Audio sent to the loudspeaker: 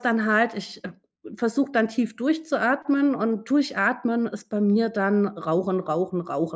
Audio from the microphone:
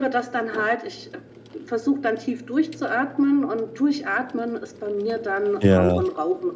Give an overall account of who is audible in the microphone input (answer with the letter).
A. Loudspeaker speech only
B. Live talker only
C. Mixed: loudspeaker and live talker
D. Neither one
C